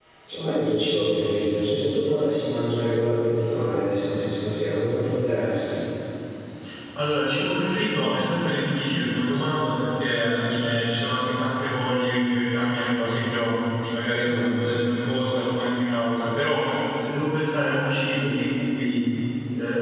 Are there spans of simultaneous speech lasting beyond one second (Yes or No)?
No